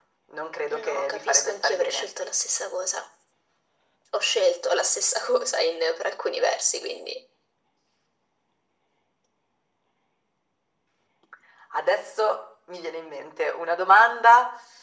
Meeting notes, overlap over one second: present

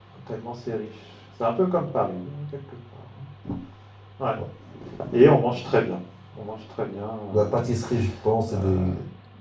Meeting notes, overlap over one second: none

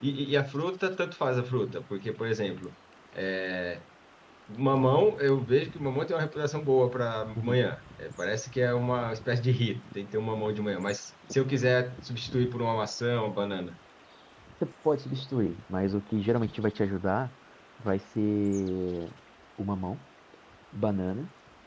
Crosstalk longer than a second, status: none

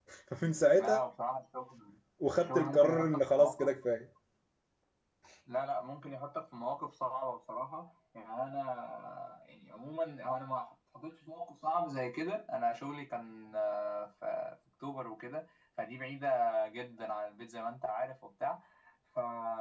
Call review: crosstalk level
present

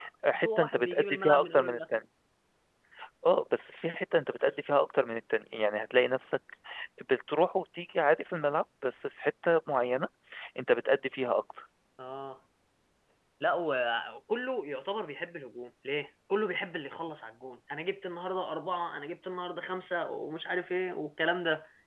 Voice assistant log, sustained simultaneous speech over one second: present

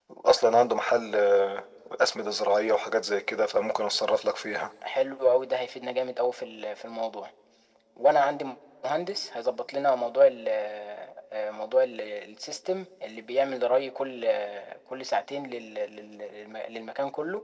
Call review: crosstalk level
none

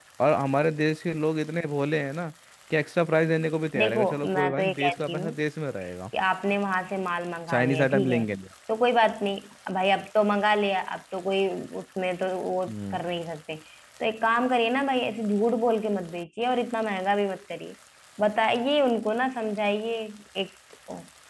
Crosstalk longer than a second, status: present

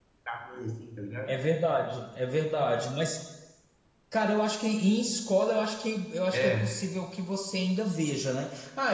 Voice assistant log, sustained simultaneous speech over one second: none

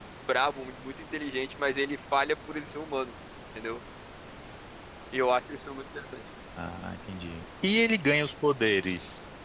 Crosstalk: none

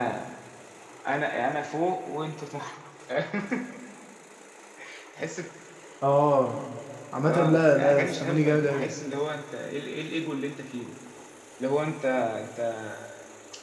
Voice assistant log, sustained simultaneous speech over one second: present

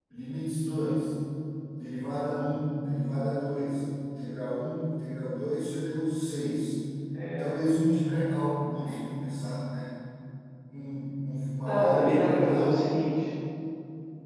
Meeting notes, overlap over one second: present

